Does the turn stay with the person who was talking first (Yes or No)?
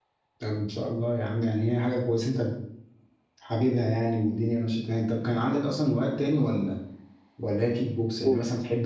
Yes